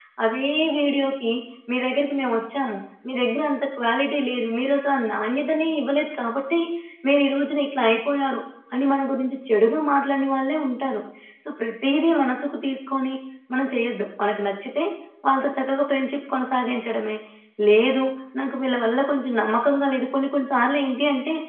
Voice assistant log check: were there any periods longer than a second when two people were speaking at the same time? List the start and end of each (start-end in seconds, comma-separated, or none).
none